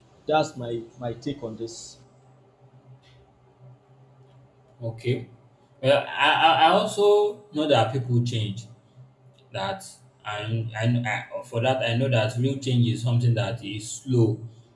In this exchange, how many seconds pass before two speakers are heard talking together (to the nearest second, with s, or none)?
none